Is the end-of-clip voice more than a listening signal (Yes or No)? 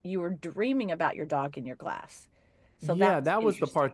Yes